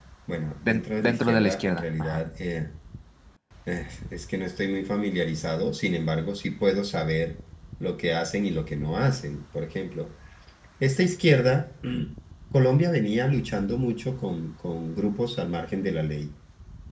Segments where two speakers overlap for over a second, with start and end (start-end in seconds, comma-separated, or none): 0.7-2.2